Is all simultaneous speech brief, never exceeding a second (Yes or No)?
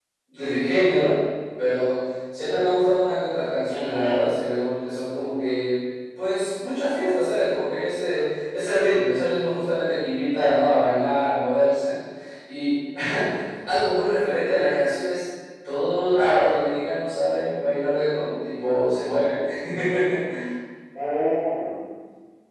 Yes